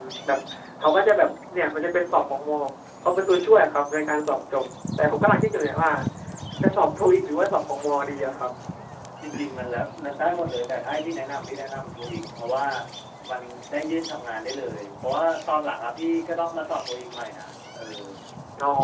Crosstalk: none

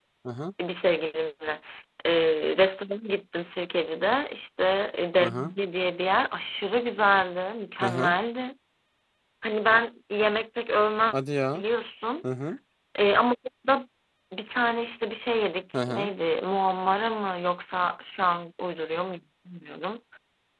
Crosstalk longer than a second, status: none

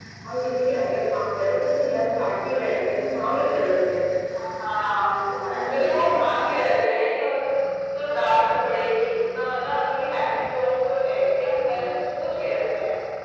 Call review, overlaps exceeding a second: present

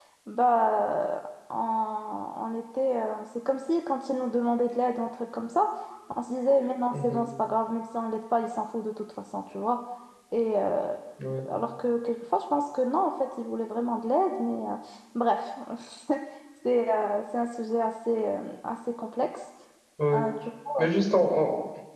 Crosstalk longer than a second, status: none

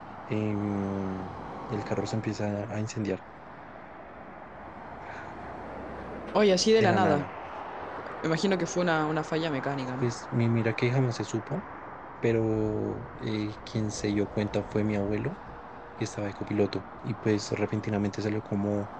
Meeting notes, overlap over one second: none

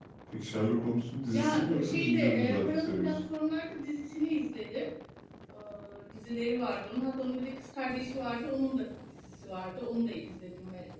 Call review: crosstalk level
present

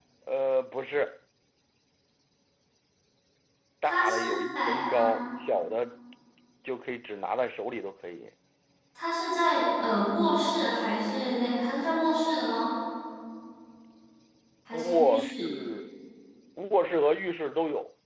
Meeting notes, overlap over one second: present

